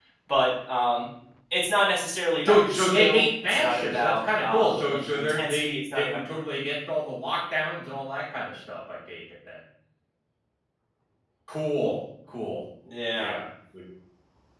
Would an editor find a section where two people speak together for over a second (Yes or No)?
Yes